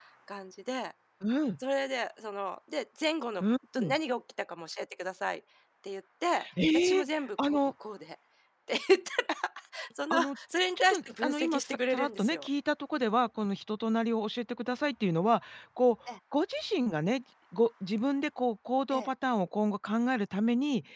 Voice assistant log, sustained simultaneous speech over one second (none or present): present